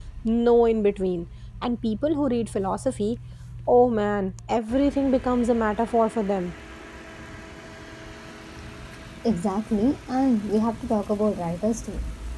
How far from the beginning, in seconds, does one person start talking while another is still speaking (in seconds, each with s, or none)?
none